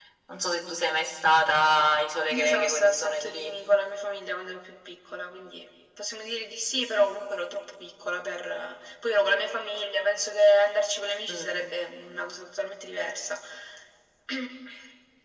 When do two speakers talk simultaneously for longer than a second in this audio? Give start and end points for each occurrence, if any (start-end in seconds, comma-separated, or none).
2.3-3.6